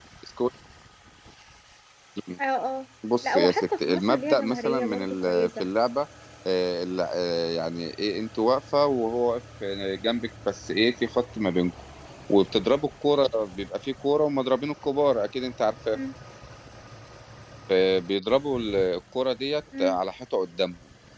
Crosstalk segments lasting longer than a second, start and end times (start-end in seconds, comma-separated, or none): 3.2-5.7